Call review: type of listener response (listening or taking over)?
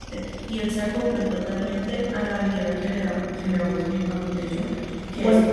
listening